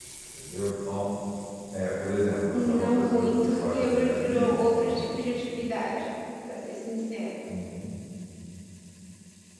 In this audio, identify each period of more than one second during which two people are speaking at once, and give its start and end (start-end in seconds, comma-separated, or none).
2.5-5.0